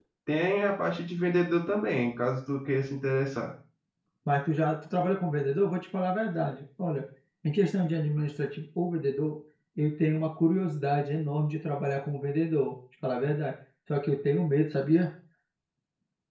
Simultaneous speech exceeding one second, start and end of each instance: none

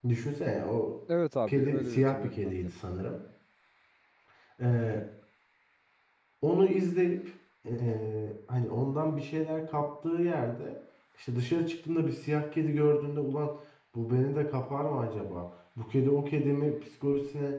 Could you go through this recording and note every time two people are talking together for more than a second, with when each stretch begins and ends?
1.5-2.7

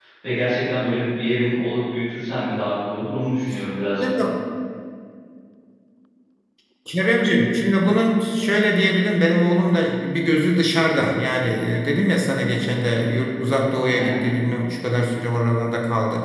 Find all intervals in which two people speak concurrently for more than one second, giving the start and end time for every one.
none

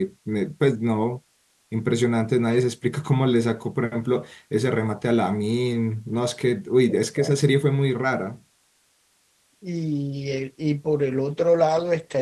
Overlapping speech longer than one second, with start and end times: none

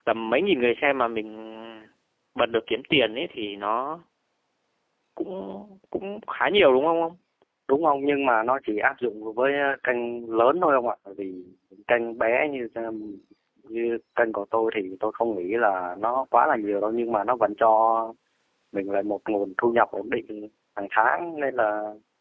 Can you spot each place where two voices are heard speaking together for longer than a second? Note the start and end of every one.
none

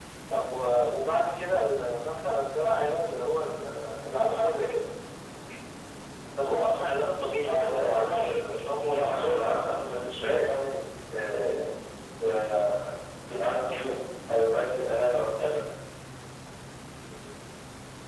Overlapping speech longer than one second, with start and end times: 7.5-9.4

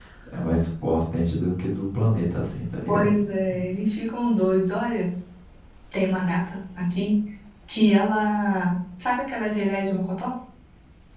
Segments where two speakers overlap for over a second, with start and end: none

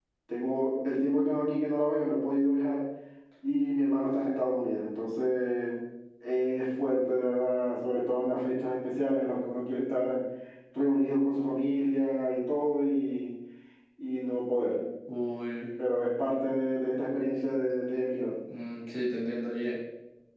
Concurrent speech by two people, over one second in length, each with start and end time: none

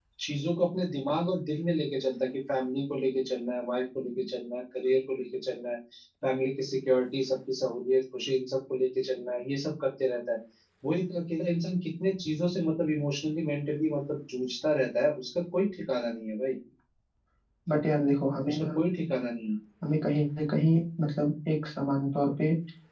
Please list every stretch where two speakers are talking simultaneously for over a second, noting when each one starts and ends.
none

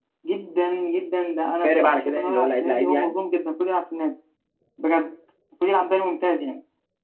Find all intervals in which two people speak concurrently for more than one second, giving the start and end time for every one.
1.6-3.1

